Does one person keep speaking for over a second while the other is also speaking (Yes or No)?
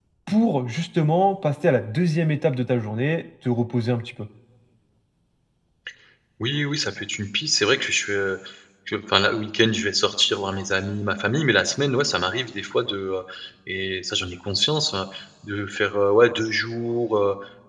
No